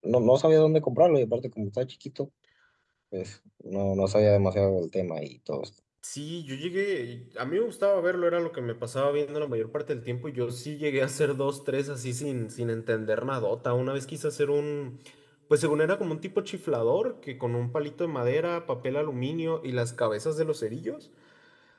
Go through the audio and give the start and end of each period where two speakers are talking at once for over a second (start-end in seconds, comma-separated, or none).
none